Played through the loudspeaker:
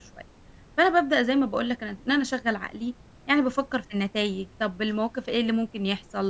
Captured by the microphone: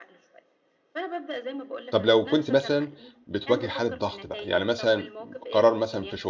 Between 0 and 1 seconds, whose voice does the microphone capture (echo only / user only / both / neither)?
echo only